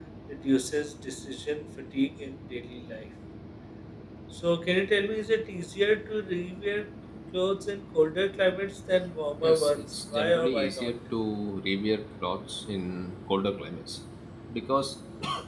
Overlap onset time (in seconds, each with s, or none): 9.4 s